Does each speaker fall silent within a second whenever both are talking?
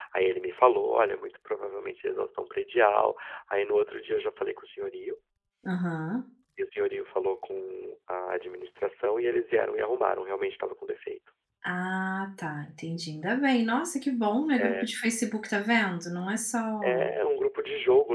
Yes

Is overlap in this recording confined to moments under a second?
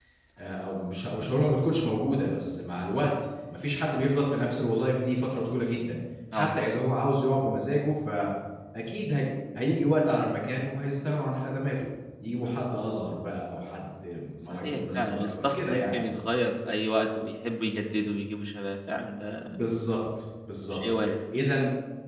No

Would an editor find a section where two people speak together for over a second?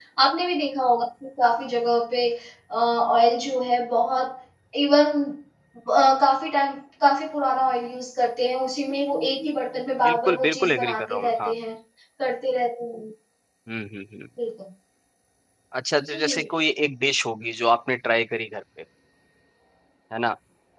Yes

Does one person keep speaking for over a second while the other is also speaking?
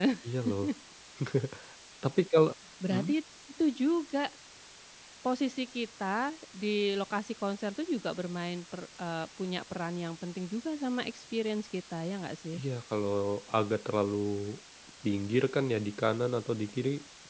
No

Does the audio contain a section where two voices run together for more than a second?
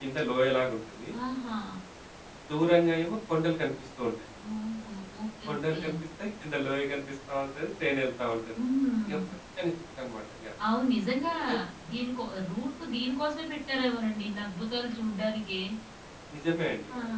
No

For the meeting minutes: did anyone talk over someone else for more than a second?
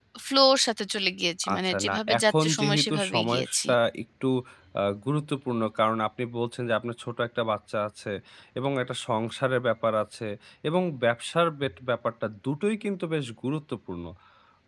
Yes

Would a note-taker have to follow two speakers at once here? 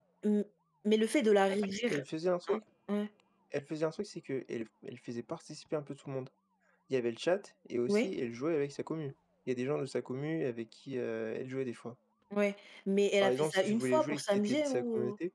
Yes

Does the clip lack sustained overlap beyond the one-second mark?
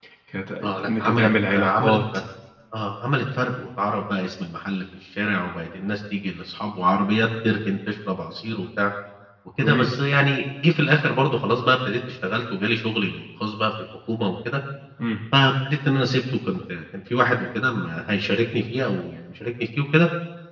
No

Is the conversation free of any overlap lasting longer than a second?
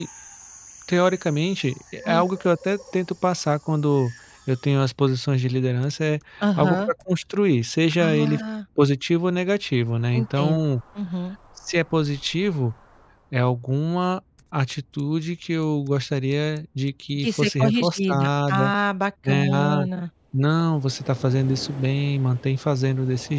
No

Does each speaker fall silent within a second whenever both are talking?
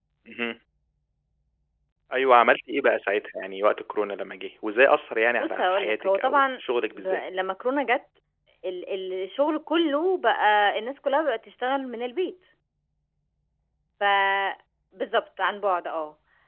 No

